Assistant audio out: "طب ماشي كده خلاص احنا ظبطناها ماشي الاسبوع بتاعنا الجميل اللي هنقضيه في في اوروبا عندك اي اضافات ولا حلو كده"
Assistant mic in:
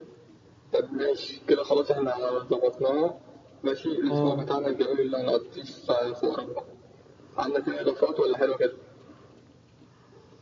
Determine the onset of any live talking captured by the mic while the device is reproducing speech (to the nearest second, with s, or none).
4 s